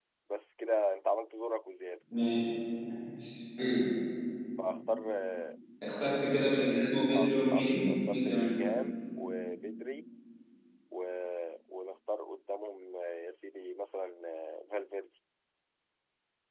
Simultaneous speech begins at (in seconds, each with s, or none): 7.1 s